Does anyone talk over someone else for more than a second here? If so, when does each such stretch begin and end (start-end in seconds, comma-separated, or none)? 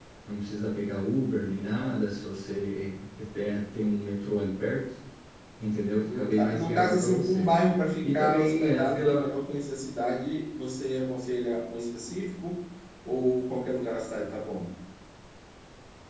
6.0-7.5, 8.0-9.3